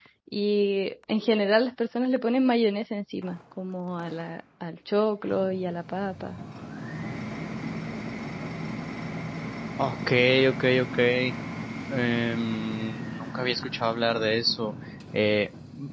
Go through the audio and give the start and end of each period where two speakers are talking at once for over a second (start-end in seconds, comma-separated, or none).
none